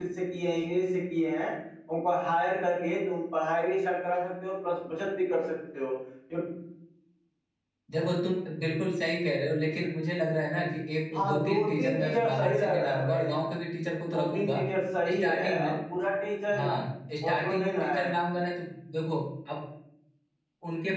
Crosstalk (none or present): present